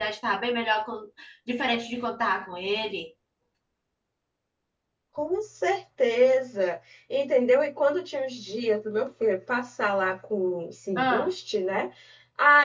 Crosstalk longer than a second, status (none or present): none